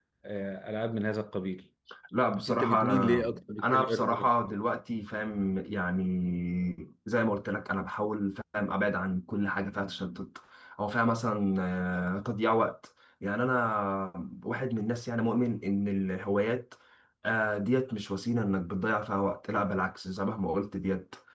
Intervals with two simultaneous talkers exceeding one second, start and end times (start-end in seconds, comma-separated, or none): 2.5-4.3